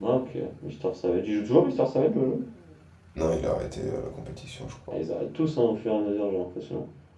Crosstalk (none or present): none